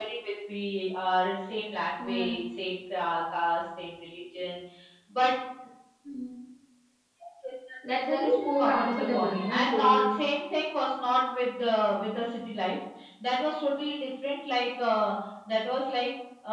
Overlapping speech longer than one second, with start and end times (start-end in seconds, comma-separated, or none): 8.1-10.2